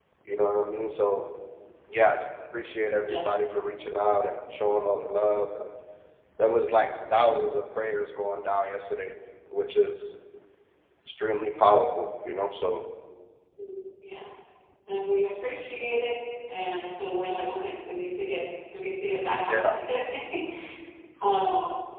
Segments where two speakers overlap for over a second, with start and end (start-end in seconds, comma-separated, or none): none